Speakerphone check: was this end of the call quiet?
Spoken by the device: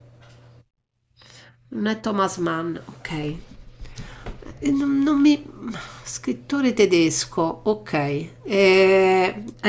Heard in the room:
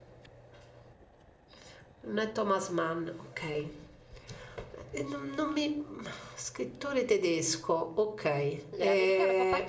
No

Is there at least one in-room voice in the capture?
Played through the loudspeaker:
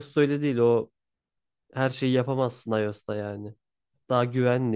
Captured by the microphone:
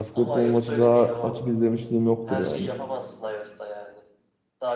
Yes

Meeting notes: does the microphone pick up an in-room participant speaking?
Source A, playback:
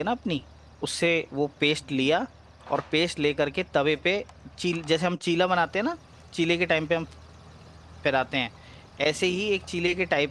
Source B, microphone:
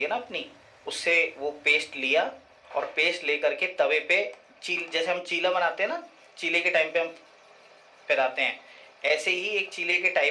No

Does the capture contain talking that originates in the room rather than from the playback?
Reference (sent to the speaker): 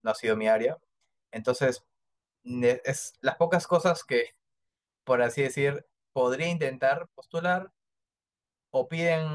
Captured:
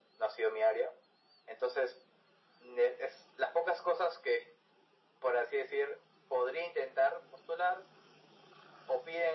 No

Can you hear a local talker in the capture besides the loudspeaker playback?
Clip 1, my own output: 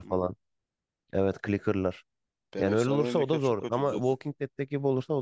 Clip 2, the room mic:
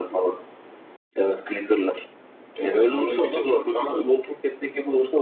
No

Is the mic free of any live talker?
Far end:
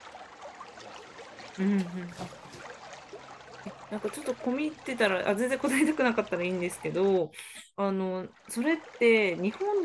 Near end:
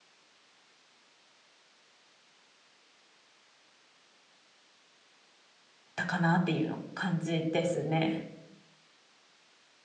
No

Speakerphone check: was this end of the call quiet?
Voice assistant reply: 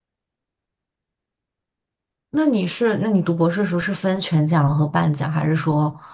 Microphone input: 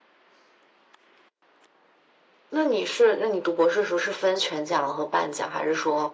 Yes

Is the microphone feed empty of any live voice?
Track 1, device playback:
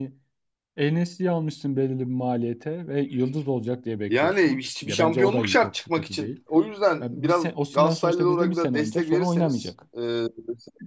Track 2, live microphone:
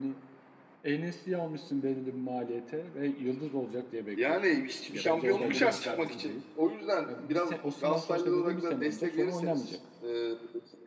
No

